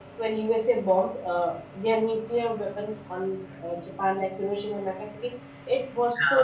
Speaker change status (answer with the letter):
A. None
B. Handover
A